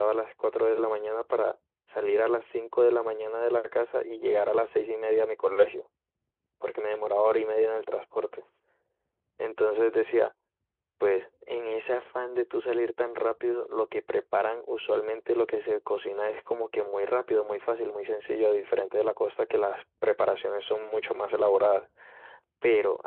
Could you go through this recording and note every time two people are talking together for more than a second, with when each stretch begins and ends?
none

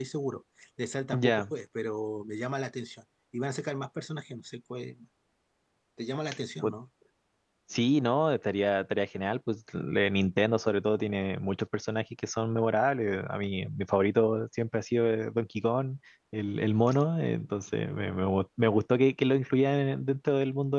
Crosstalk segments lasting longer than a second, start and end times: none

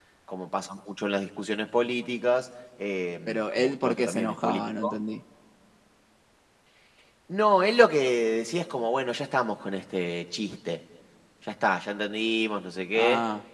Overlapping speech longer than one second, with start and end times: 3.3-5.0

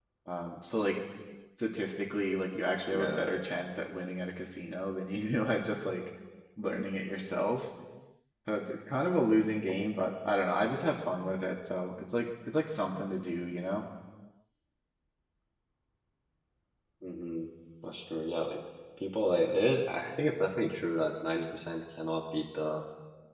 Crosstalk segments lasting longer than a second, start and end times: none

